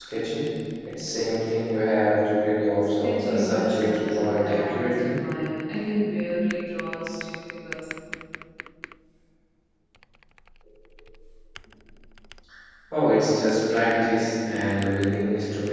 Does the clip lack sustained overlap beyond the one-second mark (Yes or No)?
No